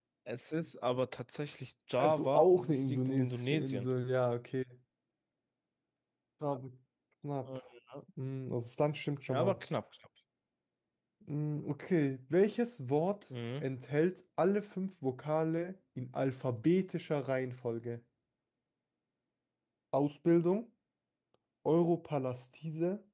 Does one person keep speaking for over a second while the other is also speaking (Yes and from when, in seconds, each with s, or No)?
Yes, from 2.0 s